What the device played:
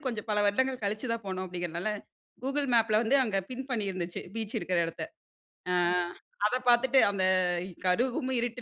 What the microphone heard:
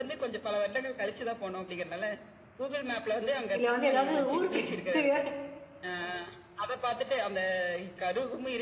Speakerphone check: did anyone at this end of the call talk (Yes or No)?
Yes